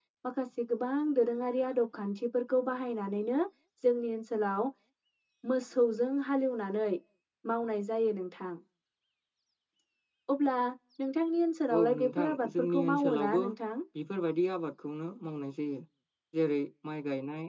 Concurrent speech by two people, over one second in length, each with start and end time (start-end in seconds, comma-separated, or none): 11.7-13.4